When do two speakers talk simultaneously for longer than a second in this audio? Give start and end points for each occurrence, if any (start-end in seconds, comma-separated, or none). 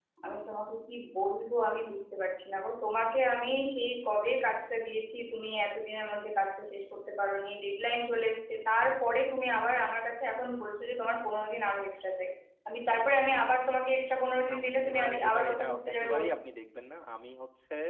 14.5-16.3